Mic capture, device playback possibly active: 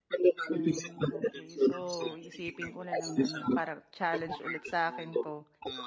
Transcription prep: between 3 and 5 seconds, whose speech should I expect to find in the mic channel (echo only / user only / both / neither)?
both